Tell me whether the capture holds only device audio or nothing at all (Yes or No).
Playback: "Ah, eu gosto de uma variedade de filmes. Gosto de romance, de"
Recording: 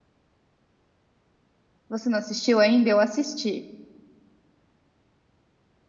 No